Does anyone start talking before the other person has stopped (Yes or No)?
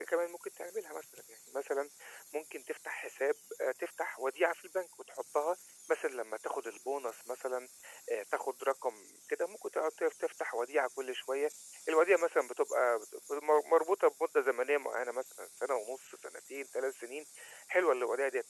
No